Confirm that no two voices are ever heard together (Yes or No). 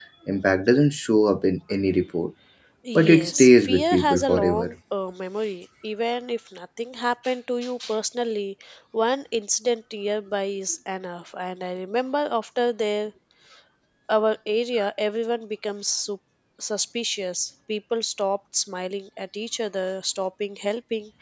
No